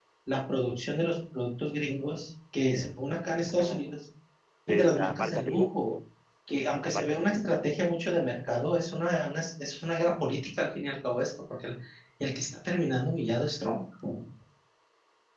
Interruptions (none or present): present